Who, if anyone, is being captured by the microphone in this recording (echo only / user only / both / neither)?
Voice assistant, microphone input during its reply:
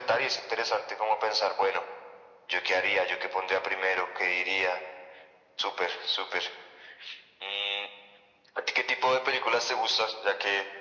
echo only